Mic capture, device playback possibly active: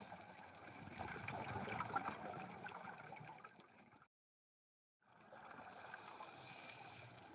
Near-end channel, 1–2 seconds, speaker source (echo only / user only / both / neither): neither